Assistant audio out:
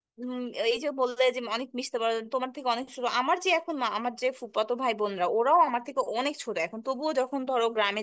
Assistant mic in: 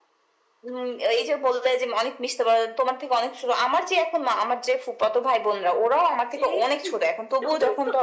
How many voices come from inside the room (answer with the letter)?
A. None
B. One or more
B